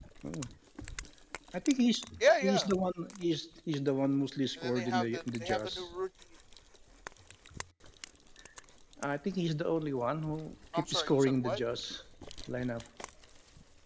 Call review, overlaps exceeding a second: present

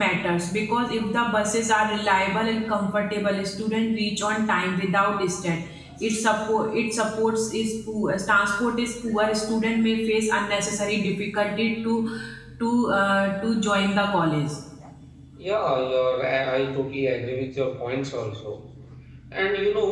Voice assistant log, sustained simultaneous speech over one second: none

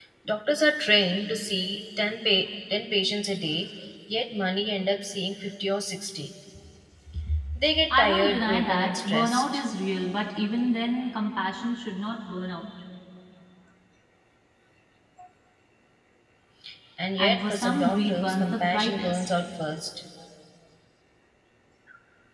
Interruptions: present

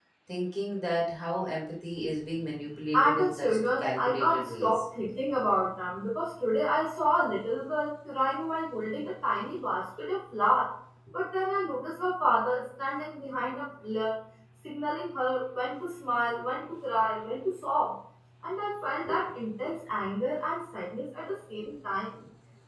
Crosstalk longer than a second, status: present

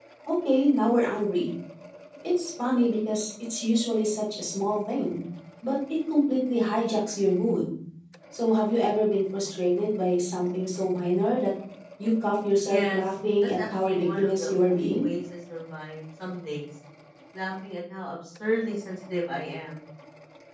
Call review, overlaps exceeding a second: present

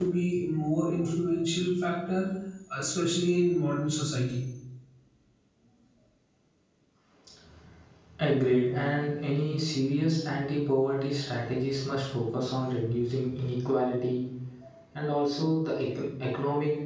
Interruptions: none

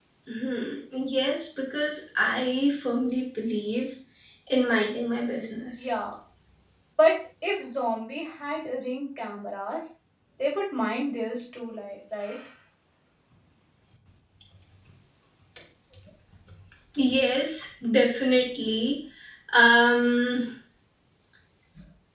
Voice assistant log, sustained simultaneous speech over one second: none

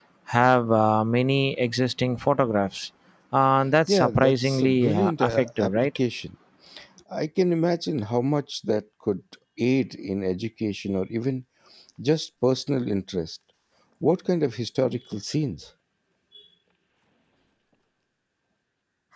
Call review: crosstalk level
present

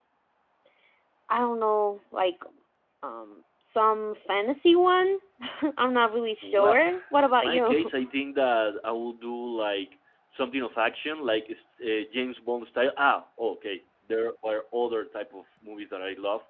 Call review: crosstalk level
present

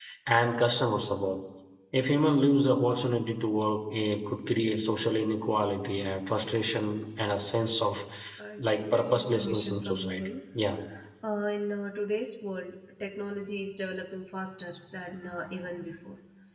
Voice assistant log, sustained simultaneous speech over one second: present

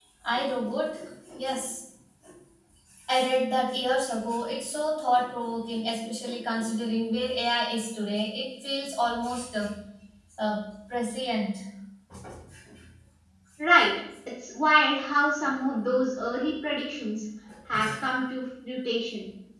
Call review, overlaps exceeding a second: none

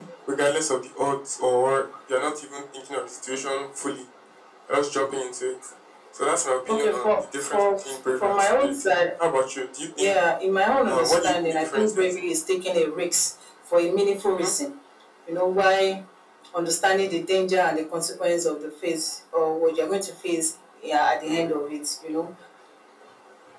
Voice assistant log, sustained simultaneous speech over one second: present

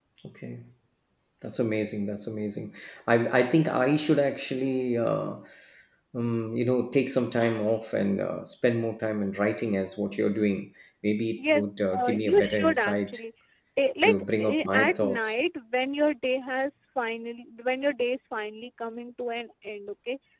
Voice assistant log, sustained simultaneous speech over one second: present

